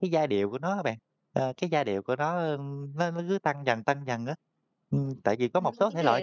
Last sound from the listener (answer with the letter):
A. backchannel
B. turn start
B